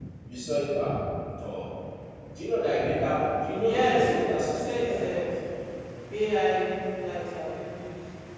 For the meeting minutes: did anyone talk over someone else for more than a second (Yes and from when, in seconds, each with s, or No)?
Yes, from 3.6 s